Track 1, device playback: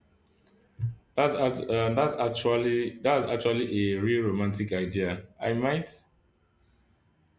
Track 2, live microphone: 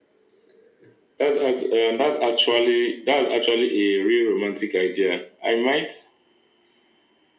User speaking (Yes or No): No